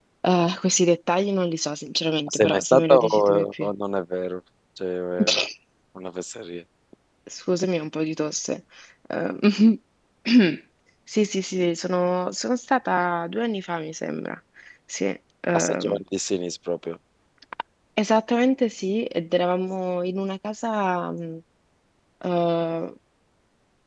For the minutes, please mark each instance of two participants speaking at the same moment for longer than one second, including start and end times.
2.3-3.7

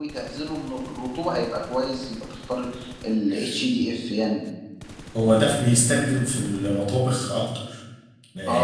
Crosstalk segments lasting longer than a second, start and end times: none

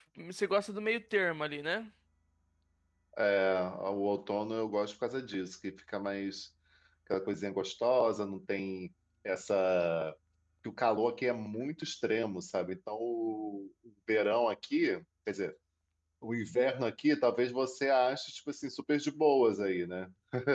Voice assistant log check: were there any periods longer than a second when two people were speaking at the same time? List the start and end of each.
none

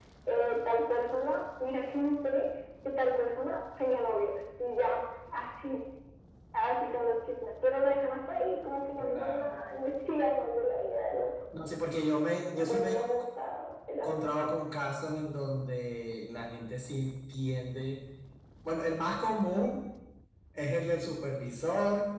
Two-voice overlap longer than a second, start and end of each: none

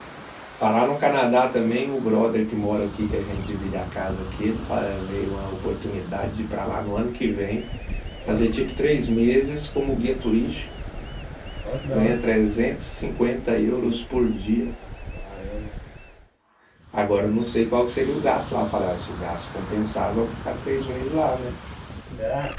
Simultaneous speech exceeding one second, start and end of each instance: none

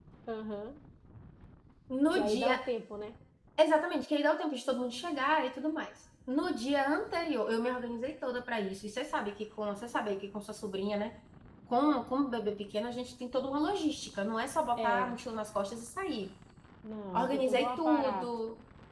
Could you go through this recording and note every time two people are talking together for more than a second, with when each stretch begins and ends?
17.2-18.4

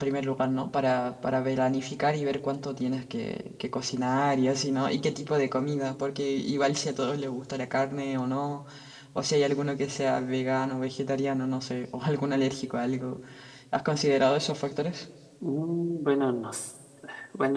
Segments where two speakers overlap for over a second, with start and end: none

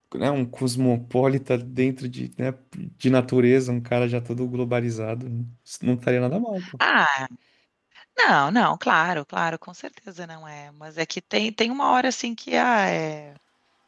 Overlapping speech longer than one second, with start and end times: none

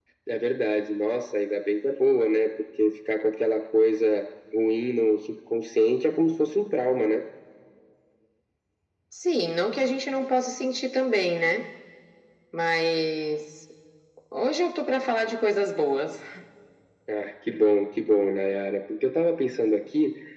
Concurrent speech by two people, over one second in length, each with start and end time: none

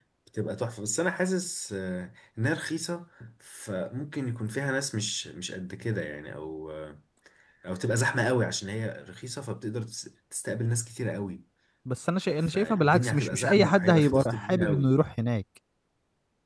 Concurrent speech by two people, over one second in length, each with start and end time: 12.4-14.9

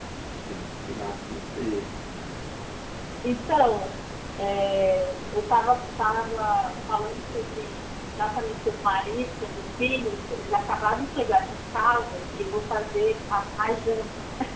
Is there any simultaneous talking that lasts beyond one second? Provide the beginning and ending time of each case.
none

